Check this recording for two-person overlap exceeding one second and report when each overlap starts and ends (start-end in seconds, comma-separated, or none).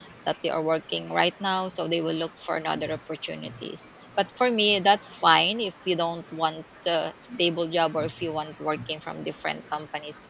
none